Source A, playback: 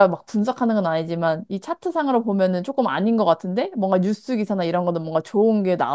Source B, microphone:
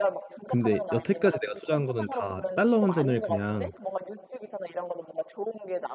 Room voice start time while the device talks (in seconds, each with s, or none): 0.5 s